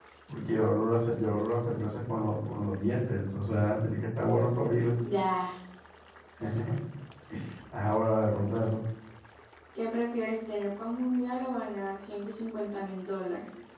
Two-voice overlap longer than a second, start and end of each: none

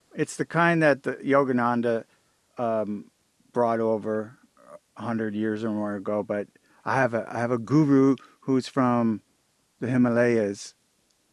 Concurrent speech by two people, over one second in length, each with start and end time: none

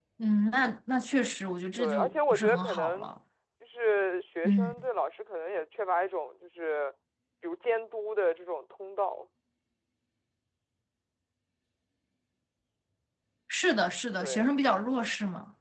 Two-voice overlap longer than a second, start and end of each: 1.8-3.1

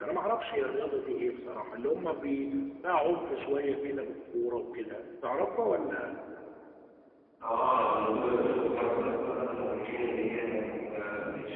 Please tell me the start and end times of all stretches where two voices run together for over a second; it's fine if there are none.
none

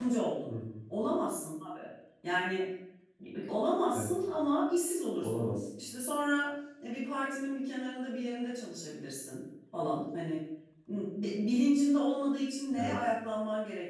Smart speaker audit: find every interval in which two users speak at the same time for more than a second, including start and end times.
none

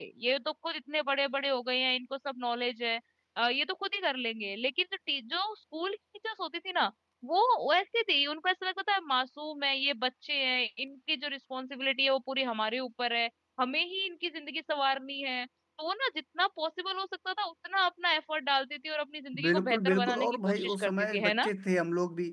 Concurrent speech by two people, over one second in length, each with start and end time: 19.4-21.5

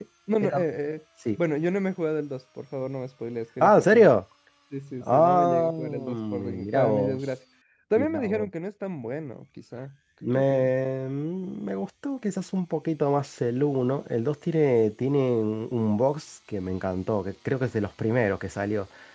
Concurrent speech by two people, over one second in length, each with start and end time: 5.0-7.2

